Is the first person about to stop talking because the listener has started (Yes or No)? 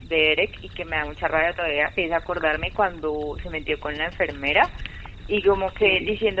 No